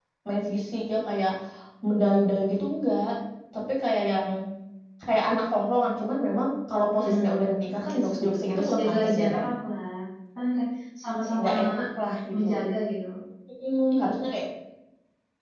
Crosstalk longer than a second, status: present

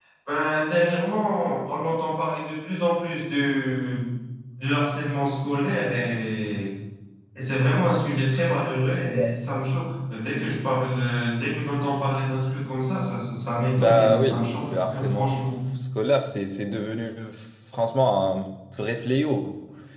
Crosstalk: present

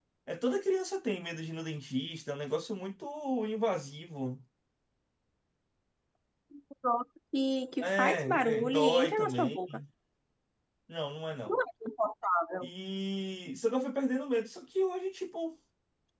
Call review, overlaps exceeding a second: present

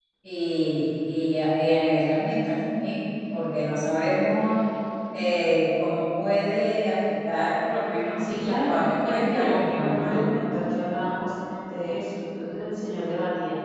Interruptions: present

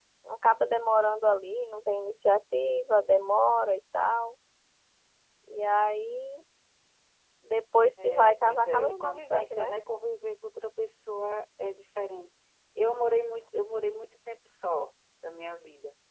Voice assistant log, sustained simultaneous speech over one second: present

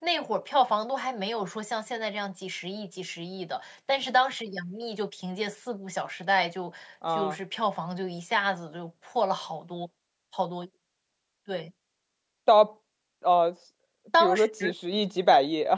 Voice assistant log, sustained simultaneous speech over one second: none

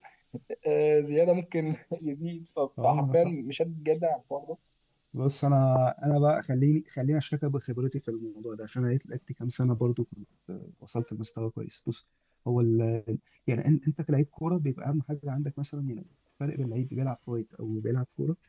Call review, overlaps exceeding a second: none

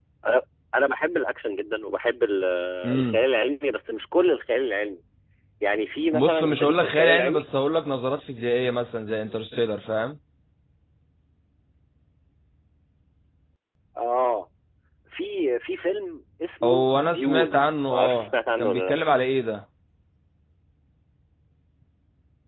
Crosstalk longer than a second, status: present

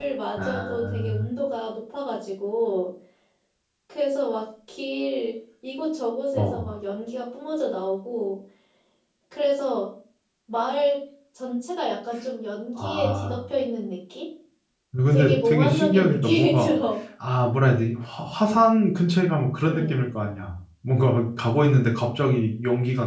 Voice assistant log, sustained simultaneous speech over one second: present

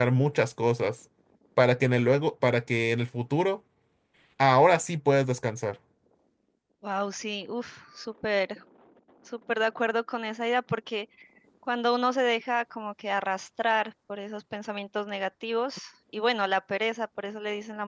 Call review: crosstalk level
none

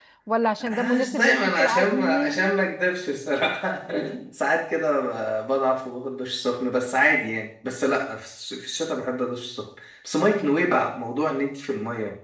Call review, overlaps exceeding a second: present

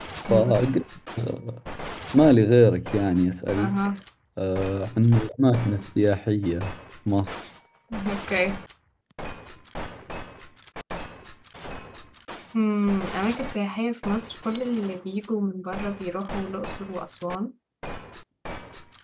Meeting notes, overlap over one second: none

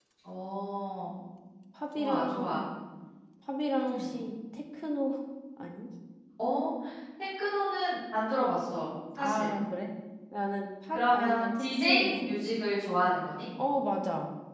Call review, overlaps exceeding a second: present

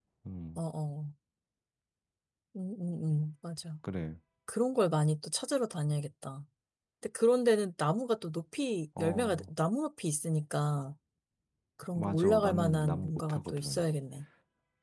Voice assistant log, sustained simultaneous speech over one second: present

